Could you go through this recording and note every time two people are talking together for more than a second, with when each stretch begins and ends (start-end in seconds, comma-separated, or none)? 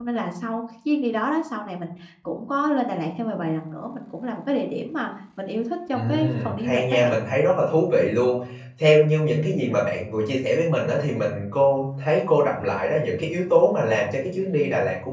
5.9-7.2